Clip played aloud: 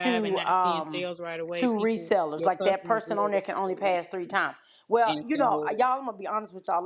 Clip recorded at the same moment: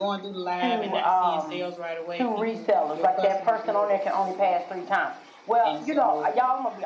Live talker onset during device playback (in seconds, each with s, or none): none